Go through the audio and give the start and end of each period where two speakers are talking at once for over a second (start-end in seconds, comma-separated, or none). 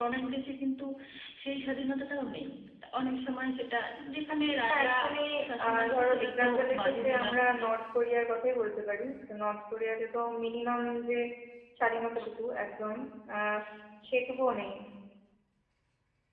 5.7-7.5